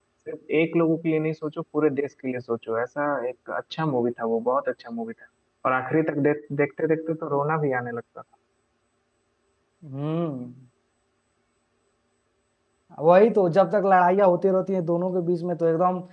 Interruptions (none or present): none